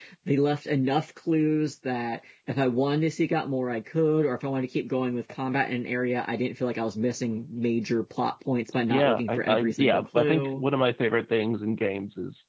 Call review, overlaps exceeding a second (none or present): present